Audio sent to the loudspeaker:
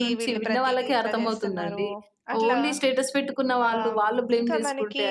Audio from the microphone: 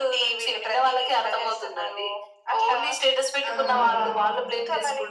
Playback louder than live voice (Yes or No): Yes